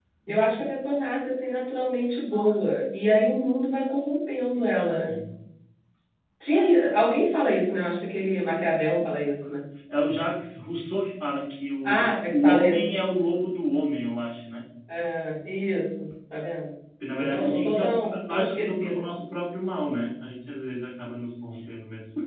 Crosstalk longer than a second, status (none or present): present